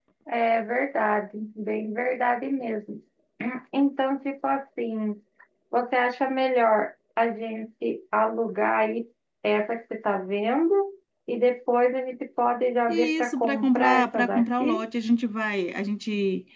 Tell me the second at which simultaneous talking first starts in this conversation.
12.9 s

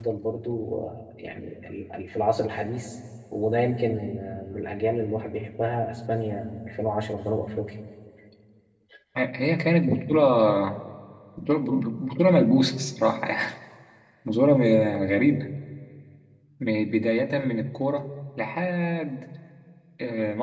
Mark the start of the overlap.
none

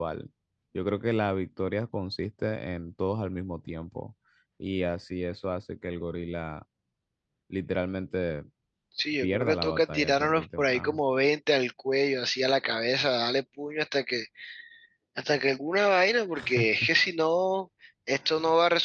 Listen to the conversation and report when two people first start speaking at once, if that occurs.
9.2 s

